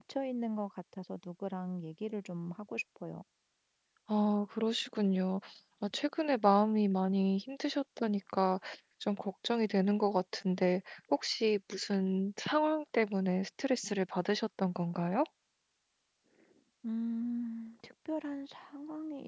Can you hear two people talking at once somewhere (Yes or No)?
No